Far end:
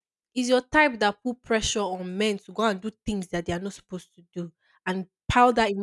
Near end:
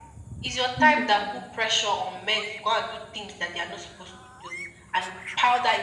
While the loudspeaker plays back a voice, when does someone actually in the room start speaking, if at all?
0.8 s

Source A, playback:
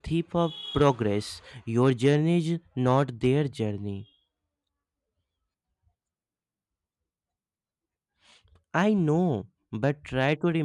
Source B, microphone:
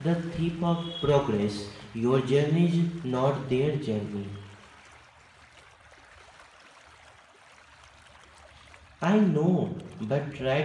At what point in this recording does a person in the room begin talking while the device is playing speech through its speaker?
none

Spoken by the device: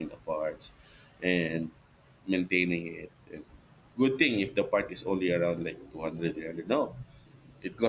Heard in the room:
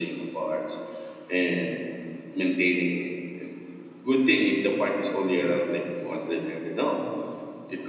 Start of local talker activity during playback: none

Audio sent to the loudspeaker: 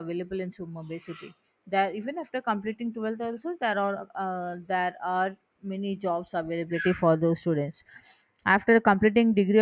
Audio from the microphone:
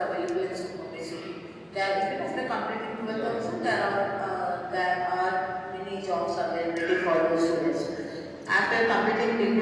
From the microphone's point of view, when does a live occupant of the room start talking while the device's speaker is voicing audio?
3.0 s

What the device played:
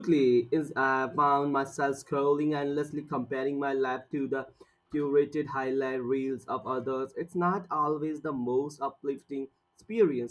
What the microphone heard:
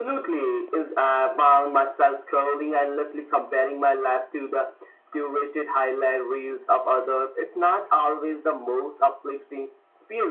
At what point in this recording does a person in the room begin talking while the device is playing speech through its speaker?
none

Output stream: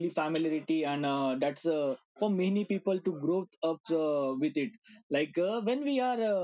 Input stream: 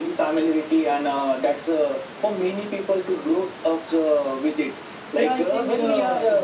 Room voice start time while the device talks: 5.1 s

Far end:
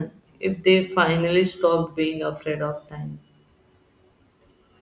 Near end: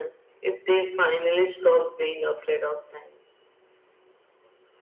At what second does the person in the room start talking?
none

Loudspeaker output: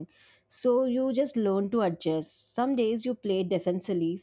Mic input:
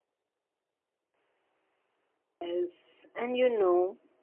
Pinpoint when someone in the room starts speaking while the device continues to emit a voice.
2.4 s

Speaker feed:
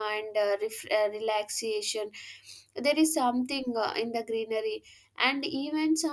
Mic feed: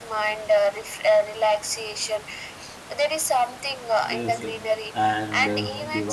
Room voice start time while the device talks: 4.0 s

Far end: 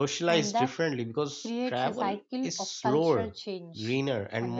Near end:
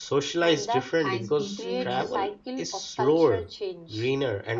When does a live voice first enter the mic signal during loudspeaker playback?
1.0 s

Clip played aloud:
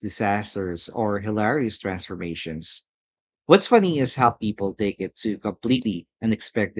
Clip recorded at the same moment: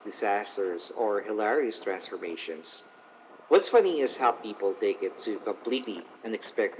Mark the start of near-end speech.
none

